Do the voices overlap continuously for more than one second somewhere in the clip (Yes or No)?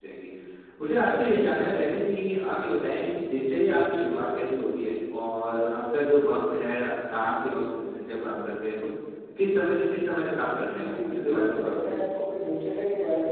Yes